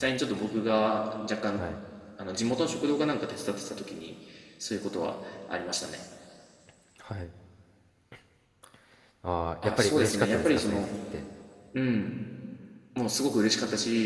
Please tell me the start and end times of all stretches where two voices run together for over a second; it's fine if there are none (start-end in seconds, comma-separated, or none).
9.6-10.9